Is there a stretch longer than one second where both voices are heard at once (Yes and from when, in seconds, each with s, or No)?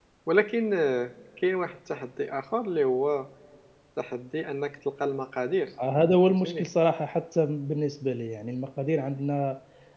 No